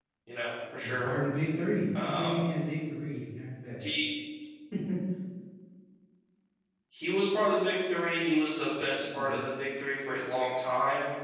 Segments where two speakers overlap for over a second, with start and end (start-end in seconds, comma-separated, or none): none